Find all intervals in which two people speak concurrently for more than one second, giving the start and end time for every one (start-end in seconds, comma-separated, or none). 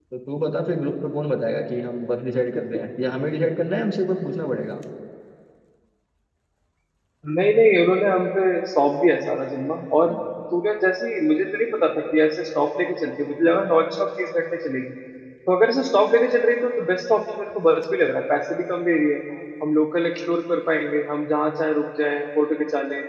none